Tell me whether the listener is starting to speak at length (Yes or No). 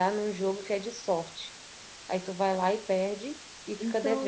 Yes